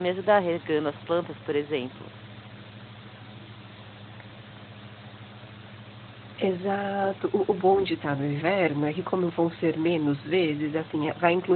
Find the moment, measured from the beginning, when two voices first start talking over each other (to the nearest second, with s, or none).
none